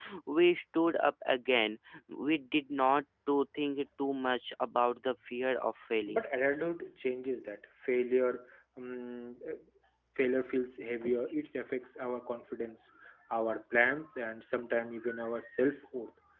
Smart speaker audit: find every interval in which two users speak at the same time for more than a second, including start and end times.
none

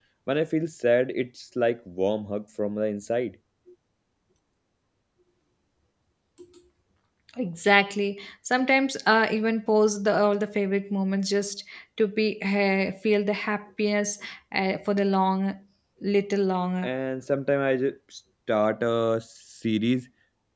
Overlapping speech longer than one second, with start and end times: none

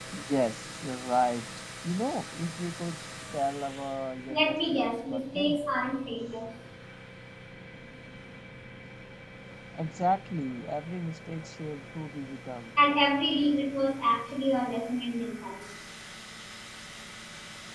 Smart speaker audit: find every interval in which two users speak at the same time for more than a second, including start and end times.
4.3-5.6

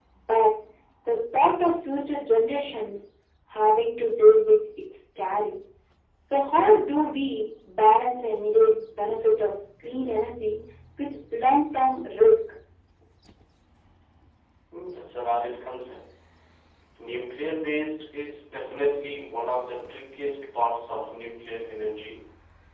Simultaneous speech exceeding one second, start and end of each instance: none

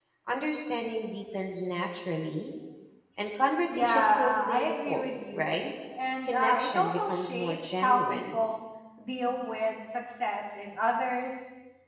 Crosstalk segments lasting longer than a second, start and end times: 3.7-5.6, 6.2-8.3

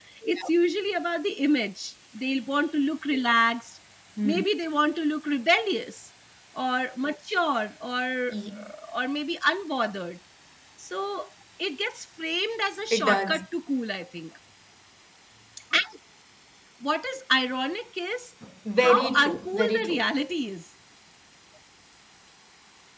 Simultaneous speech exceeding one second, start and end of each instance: 18.8-20.1

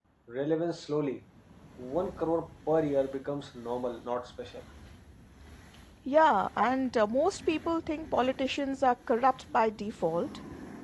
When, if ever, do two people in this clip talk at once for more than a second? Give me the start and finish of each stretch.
none

